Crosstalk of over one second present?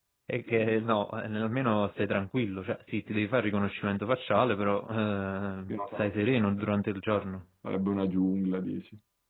No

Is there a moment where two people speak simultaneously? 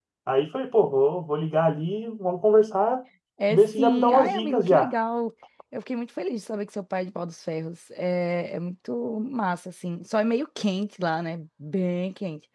Yes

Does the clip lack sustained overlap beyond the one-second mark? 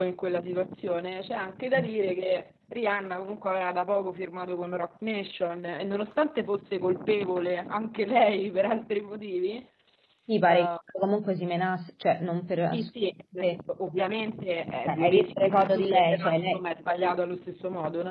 No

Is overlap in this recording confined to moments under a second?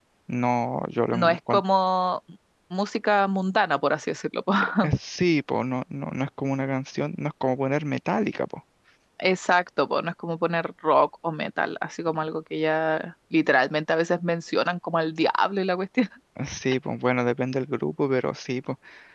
Yes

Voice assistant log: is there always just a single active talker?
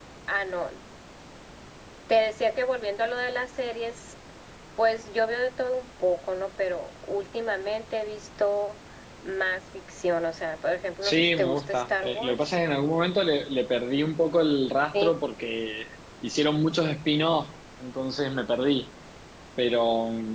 No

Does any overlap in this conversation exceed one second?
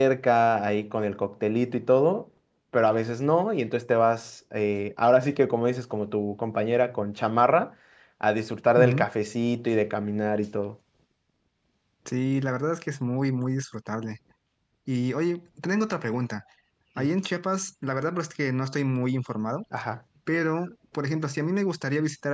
No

